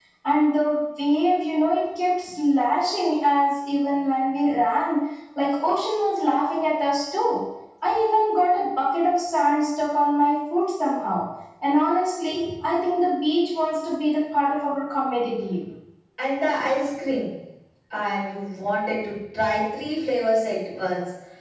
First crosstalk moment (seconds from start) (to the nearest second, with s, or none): none